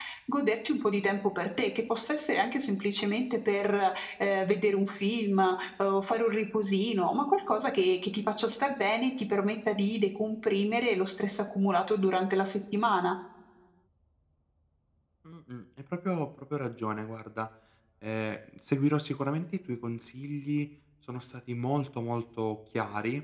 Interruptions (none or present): none